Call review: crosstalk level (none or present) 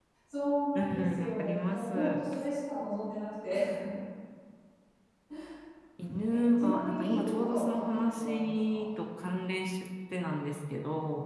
present